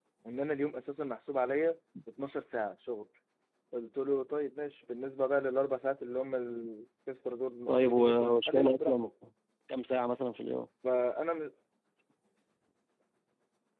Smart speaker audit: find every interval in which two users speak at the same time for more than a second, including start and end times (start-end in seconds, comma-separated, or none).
7.7-9.1